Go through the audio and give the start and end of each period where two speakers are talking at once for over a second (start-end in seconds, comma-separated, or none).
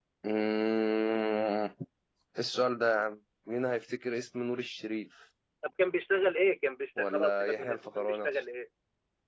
7.0-8.3